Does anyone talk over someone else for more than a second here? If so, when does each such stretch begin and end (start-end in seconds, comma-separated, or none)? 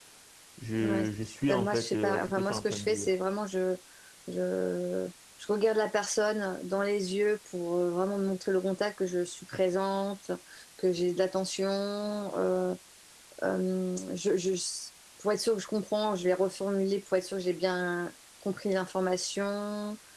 1.5-3.1